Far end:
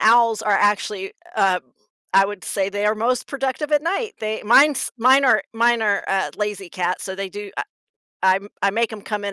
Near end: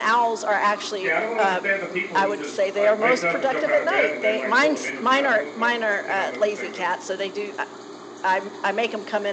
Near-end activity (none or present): present